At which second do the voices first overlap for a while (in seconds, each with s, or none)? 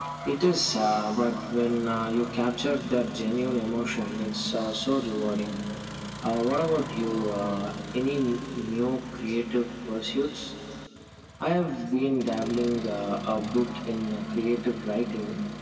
none